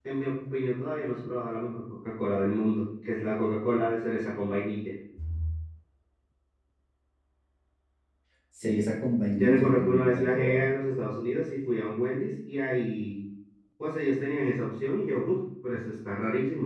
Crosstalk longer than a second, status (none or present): present